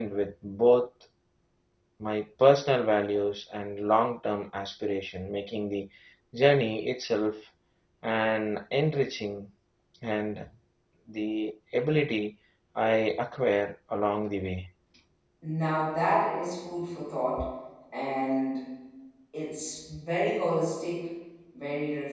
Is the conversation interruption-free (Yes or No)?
Yes